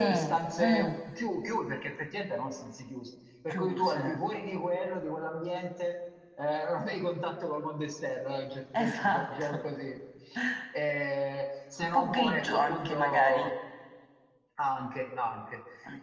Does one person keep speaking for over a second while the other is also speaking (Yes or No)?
Yes